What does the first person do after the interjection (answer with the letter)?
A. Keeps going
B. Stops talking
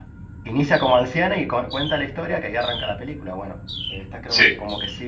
A